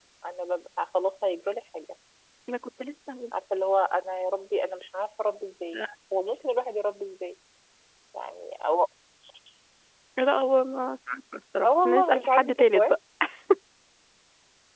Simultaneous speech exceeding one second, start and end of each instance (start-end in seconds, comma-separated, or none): 11.6-12.9